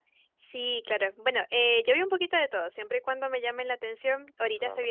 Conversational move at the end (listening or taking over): listening